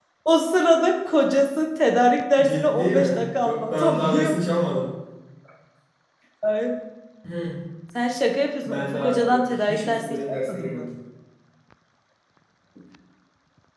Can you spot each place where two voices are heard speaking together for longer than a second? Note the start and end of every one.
2.4-4.3, 8.6-10.9

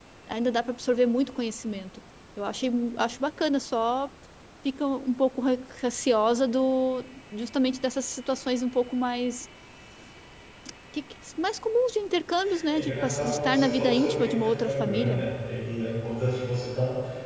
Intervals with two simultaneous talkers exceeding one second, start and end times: 12.7-15.2

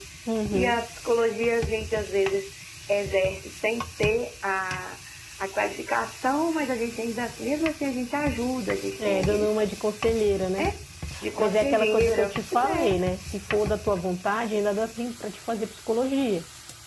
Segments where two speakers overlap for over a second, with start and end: 11.4-13.0

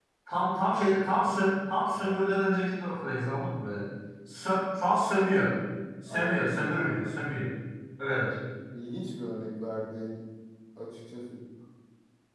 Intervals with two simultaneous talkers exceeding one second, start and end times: 6.1-7.3

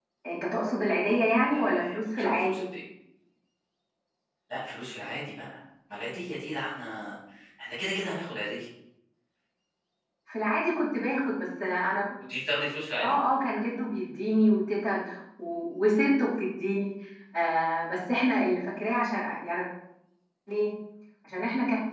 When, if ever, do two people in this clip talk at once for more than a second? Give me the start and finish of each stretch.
1.4-2.6

